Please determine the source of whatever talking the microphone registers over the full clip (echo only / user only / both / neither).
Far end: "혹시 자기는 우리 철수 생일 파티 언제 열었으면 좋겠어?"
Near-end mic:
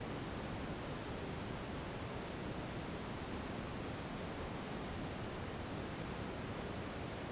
neither